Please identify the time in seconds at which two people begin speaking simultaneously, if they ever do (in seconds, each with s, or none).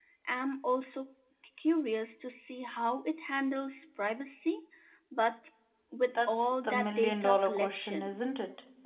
6.3 s